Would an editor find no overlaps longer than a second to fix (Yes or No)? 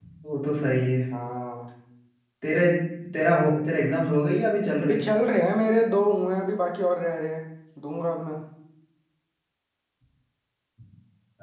Yes